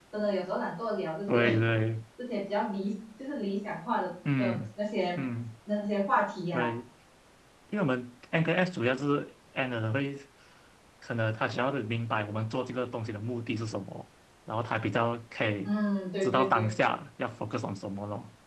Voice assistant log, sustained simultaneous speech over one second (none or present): none